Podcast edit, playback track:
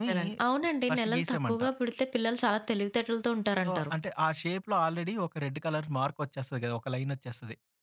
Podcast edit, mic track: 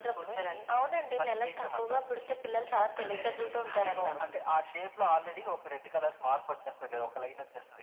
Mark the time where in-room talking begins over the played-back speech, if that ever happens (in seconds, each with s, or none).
3.0 s